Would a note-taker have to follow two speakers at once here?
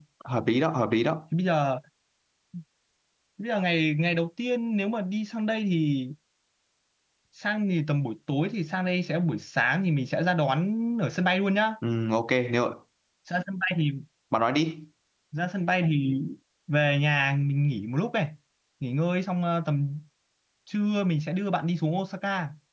No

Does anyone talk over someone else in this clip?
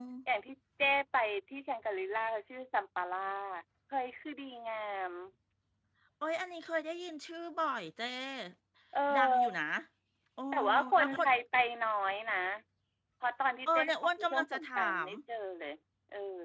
Yes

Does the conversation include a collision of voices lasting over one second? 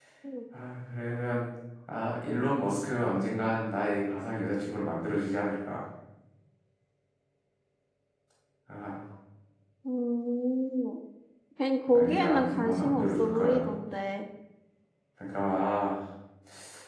Yes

